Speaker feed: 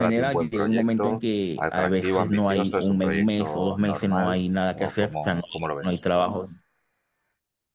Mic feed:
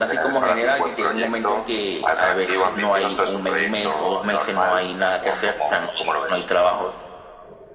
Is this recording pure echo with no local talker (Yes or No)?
Yes